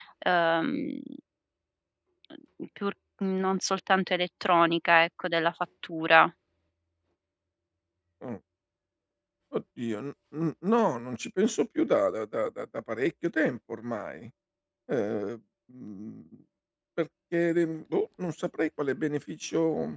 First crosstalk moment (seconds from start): none

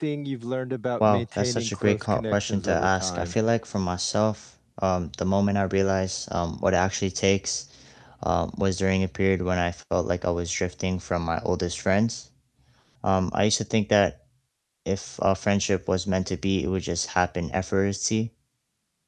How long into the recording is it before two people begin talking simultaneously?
1.0 s

